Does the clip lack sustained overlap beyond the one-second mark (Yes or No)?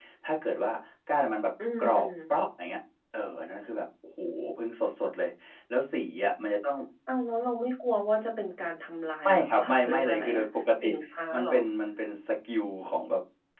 No